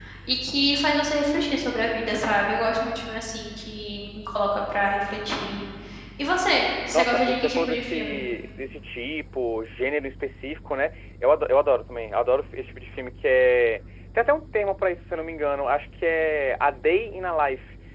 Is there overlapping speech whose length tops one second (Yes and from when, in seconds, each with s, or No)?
Yes, from 6.9 s